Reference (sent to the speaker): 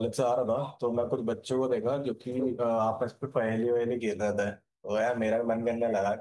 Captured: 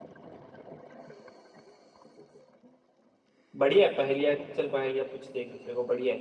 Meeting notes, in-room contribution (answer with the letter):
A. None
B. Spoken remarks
B